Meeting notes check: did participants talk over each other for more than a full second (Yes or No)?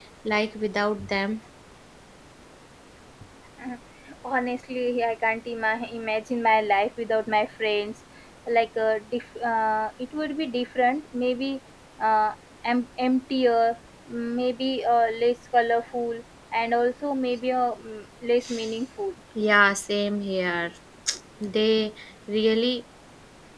No